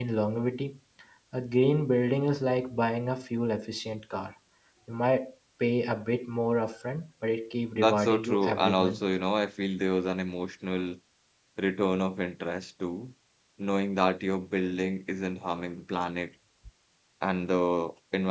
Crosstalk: present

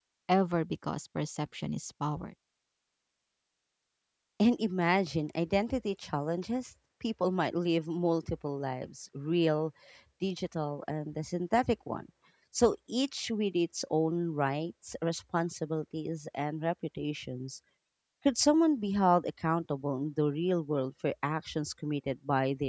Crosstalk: none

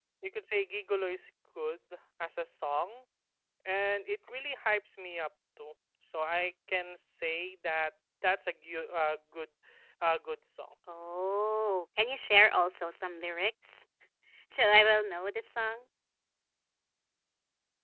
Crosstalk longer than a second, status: none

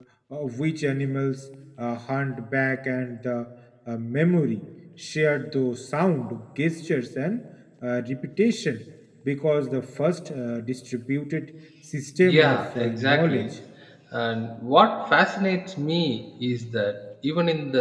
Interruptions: present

